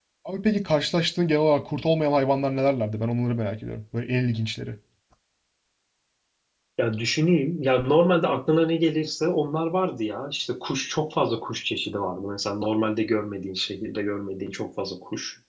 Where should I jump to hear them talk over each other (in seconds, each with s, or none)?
none